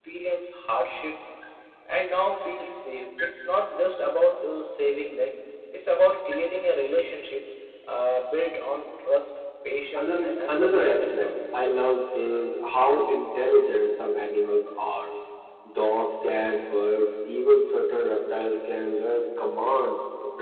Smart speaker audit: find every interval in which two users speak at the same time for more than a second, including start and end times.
9.9-11.3

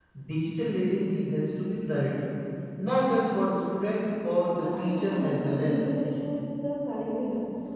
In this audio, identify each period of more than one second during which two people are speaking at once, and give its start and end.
4.6-5.8

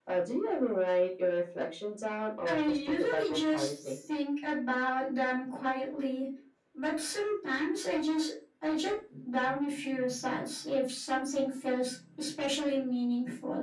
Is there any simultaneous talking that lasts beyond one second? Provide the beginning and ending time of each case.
2.5-4.0

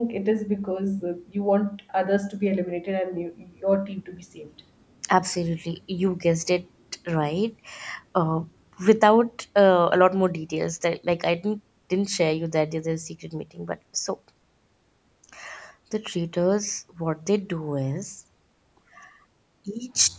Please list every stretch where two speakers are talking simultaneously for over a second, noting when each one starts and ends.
none

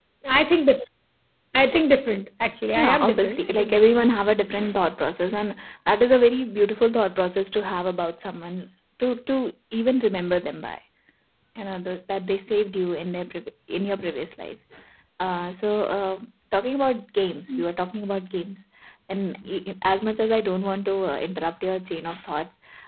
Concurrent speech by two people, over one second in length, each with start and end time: 2.7-4.1

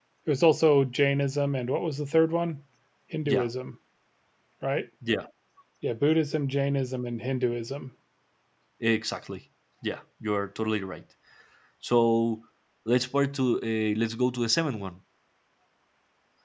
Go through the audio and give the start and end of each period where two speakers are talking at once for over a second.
none

